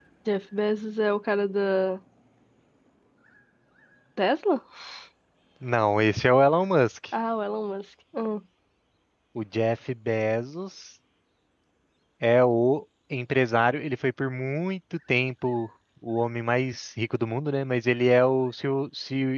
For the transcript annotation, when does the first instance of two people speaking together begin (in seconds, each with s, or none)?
none